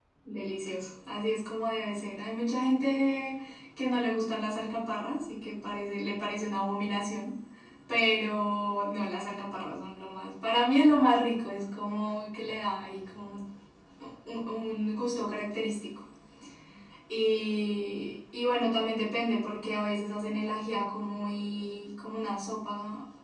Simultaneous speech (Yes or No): No